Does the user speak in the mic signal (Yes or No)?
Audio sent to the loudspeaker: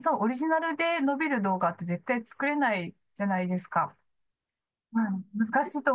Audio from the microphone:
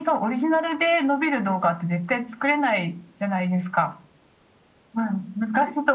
No